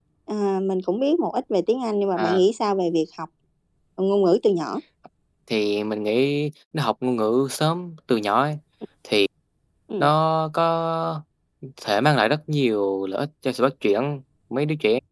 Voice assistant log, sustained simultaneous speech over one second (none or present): none